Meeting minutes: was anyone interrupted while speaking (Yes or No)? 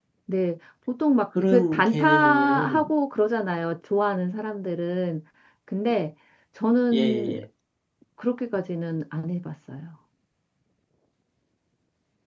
Yes